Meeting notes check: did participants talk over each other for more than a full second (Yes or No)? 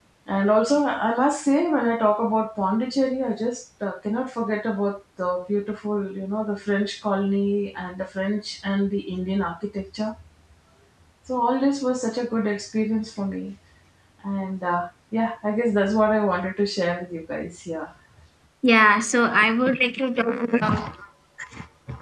No